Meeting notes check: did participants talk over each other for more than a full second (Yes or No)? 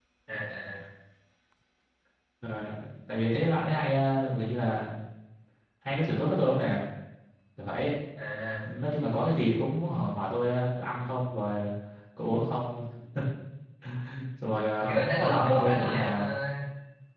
Yes